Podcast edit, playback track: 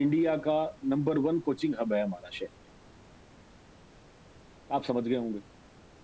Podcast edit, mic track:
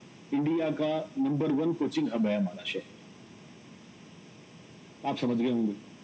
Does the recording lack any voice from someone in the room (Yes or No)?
Yes